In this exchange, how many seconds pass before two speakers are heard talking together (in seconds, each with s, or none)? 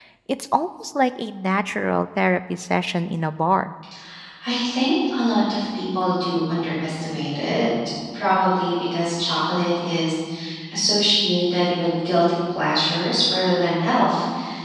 none